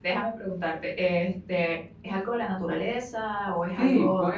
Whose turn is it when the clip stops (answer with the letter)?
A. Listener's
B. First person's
A